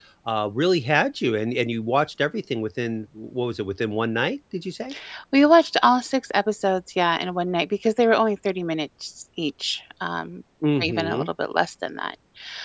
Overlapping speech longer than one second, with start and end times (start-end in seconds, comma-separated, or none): none